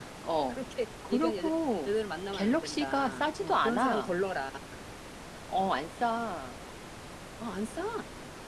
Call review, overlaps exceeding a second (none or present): present